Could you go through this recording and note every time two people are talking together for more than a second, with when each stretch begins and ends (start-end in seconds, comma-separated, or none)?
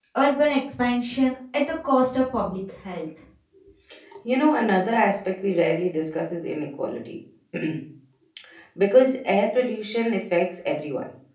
none